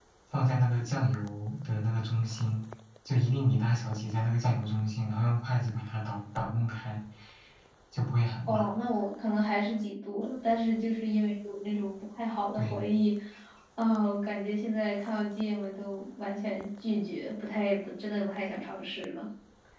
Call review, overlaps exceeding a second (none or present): none